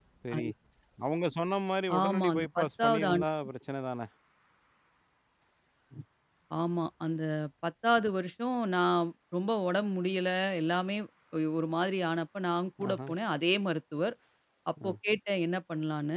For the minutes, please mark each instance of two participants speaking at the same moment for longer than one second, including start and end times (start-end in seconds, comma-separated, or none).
2.0-3.2